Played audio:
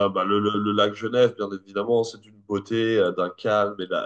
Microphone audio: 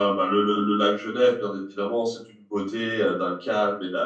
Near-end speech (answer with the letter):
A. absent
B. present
A